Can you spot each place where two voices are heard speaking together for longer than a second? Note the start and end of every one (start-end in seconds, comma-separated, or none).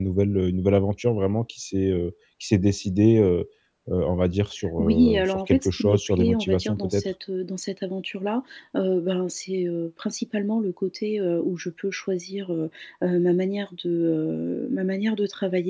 4.8-7.1